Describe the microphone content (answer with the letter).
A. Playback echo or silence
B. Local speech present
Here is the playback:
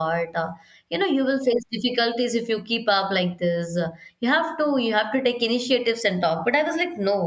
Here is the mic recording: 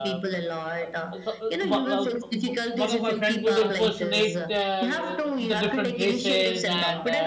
B